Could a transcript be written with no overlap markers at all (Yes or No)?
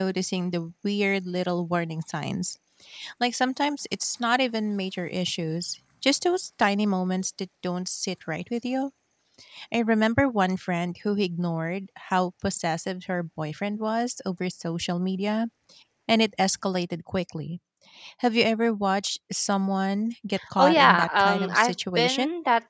No